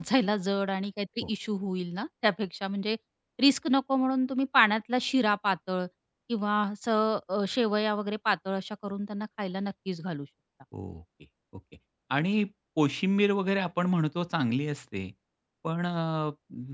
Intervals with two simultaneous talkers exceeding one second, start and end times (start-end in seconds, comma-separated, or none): none